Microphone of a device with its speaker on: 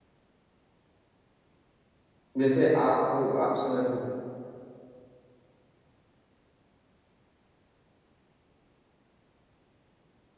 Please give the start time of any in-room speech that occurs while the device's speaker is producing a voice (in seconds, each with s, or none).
2.4 s